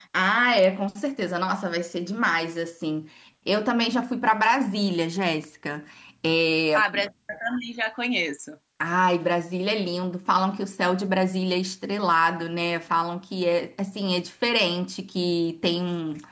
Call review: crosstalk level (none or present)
none